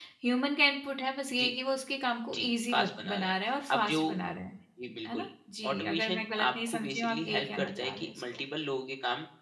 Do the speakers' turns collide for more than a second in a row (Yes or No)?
Yes